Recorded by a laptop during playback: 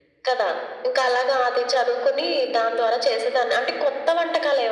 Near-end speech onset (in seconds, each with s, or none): none